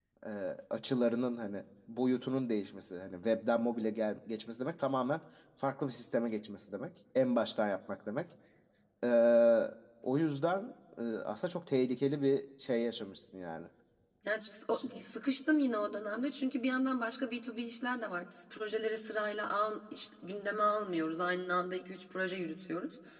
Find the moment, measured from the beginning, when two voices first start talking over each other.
none

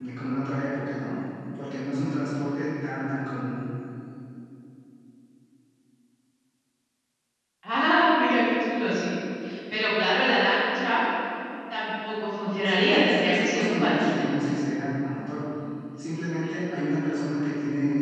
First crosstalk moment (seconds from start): 12.6 s

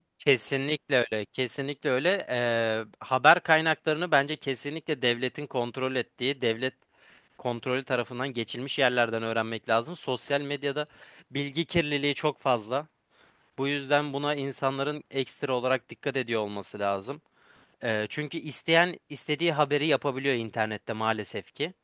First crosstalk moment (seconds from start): none

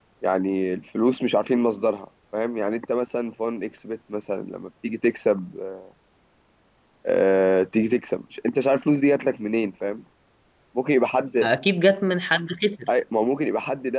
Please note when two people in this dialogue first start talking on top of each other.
none

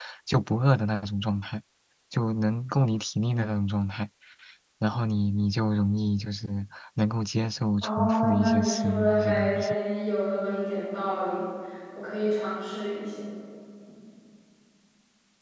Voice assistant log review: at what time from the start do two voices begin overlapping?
7.8 s

